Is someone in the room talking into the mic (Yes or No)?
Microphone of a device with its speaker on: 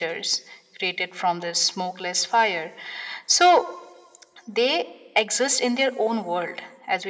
No